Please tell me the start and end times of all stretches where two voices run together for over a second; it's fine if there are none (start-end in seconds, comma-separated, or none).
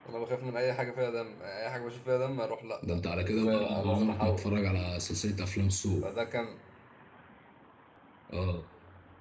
2.9-4.5